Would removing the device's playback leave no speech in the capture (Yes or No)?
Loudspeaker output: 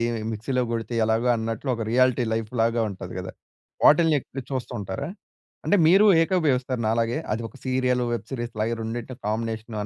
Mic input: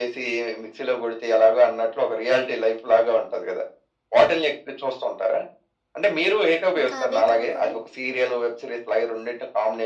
No